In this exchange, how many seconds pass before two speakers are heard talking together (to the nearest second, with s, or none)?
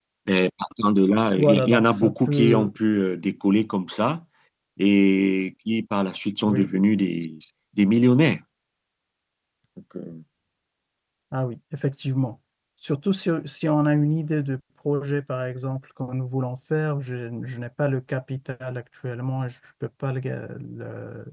1 s